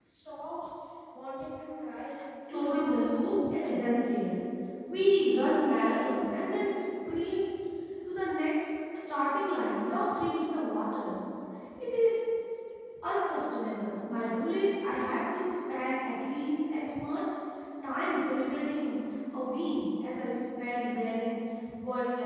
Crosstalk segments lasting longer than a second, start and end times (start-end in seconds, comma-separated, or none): 2.5-3.9